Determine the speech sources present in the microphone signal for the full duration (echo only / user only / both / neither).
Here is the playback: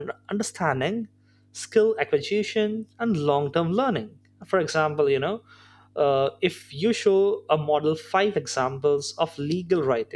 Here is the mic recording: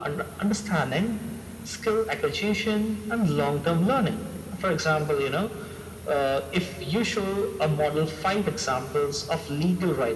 echo only